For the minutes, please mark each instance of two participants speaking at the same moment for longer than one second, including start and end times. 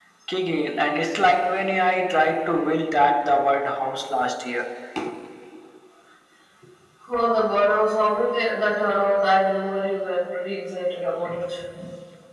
none

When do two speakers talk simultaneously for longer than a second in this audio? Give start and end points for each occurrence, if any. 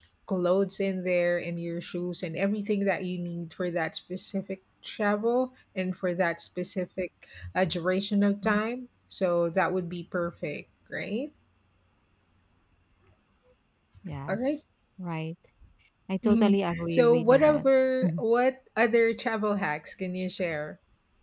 16.2-17.7

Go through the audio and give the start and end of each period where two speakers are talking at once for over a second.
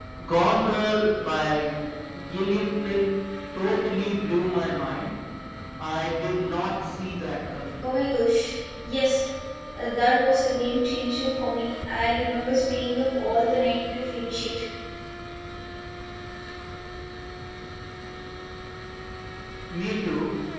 none

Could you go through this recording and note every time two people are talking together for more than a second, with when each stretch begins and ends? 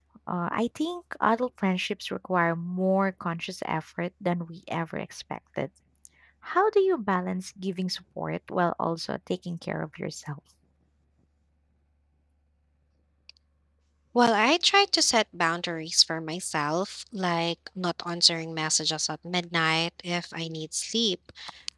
none

